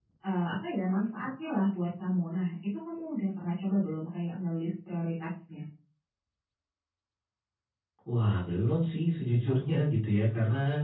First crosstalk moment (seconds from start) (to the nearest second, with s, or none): none